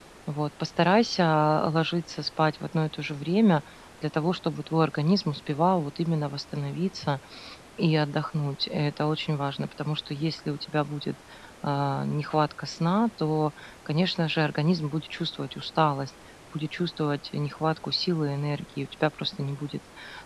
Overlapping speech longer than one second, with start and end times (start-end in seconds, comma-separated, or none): none